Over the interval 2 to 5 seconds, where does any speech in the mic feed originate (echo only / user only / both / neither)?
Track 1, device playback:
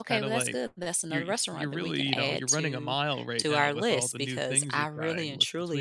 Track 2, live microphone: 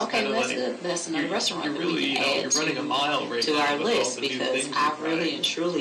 echo only